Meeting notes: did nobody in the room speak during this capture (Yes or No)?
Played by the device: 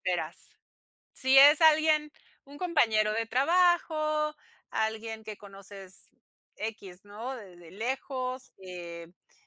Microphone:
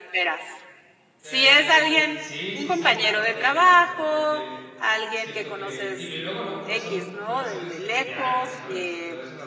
No